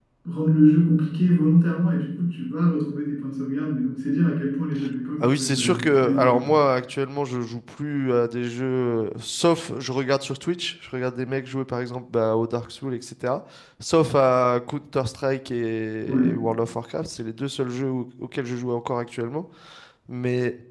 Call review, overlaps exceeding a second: present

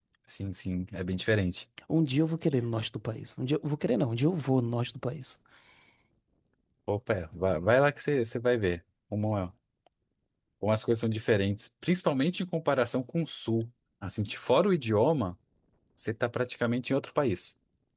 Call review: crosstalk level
none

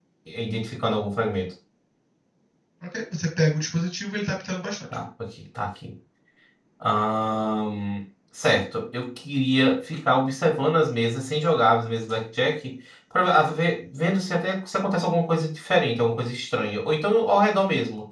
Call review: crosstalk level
none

